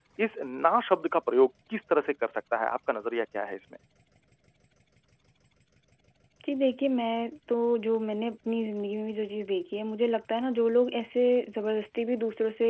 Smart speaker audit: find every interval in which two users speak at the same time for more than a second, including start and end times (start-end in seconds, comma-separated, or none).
none